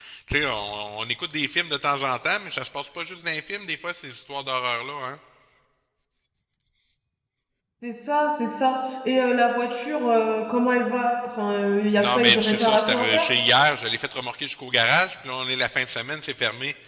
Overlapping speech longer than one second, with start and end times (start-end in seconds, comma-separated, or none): 12.0-13.2